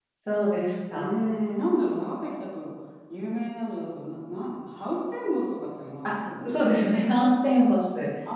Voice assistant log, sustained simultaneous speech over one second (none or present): none